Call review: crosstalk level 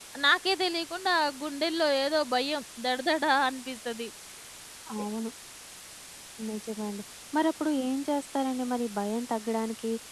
none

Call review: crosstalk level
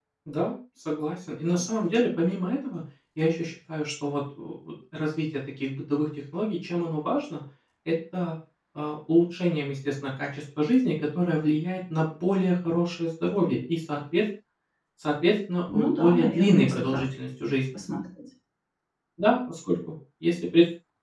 present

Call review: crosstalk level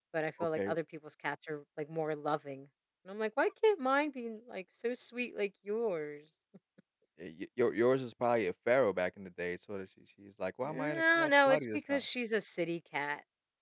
present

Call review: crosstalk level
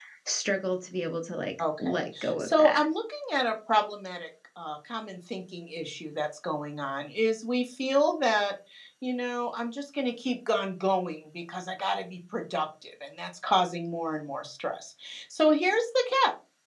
present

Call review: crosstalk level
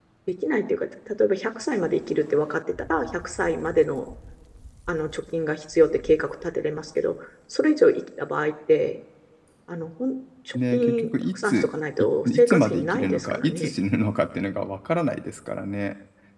present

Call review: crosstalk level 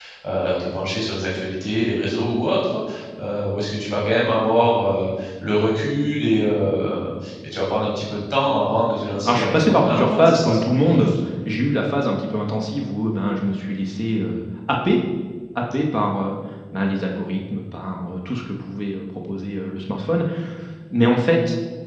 present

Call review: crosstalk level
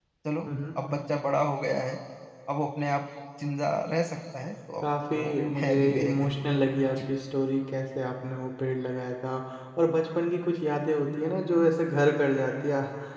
present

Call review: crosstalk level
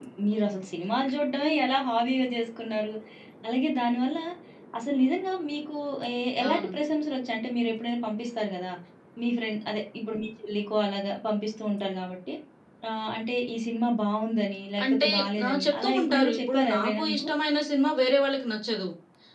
present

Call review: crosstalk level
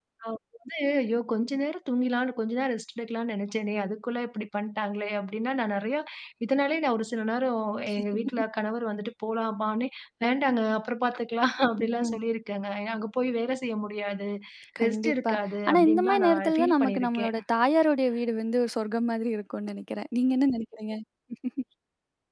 present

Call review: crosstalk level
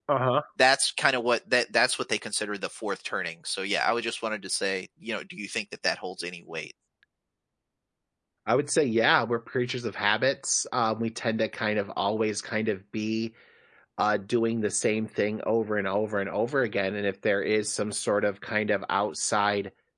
none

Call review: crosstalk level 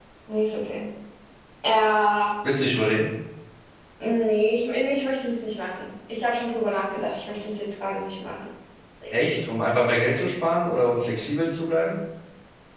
none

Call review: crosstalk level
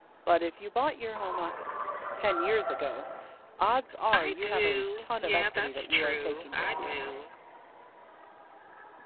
present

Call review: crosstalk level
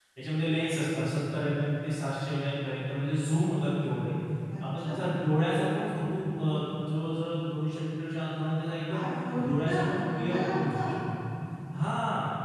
present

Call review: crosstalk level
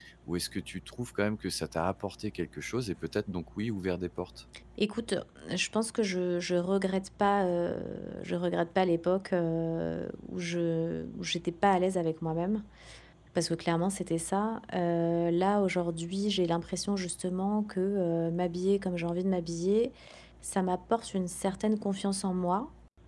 none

